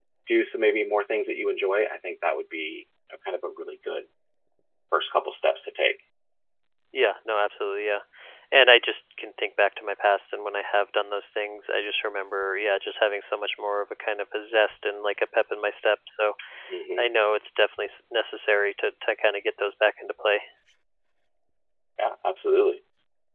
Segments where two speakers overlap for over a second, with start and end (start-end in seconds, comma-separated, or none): none